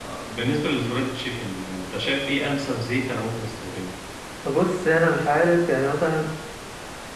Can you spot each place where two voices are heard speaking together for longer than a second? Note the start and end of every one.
none

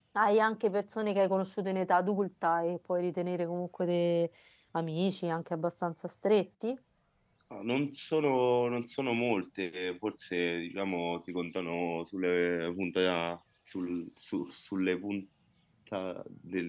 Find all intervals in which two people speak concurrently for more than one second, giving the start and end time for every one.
none

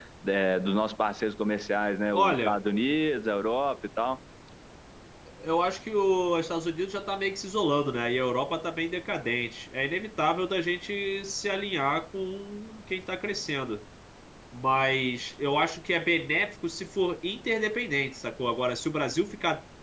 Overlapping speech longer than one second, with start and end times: none

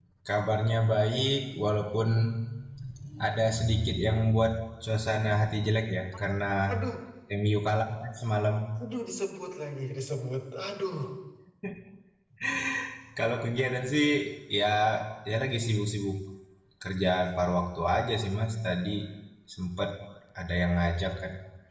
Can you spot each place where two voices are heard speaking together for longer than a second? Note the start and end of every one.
none

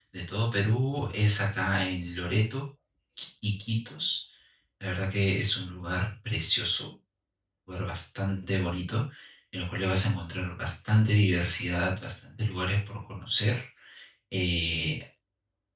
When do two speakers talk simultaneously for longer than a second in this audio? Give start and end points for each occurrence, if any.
none

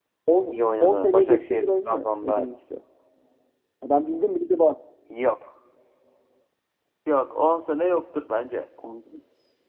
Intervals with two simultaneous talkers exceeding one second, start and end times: 0.5-2.5

